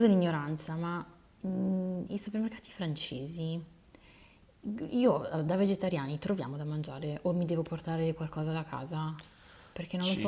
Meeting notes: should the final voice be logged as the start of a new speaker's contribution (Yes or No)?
Yes